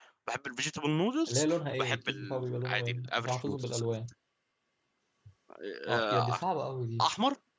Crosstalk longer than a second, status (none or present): present